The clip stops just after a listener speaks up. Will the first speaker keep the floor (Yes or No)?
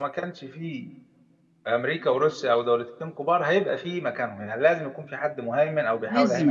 No